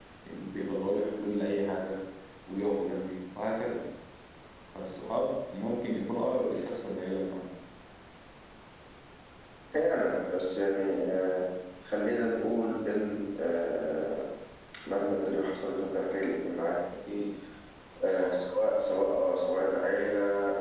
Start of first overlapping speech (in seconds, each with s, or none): none